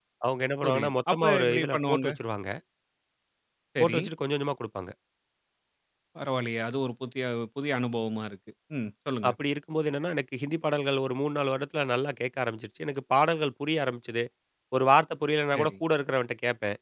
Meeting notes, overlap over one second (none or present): present